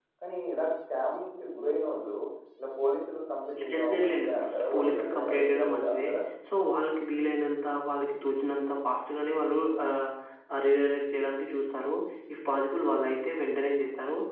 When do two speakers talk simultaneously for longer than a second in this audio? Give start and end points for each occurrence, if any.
3.7-6.1

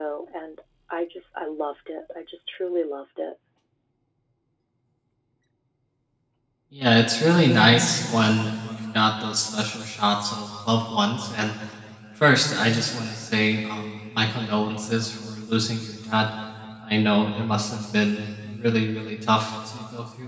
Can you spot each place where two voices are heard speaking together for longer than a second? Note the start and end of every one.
none

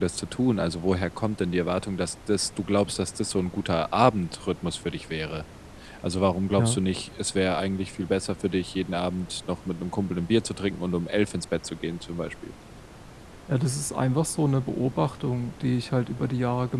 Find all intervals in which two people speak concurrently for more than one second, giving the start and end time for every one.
none

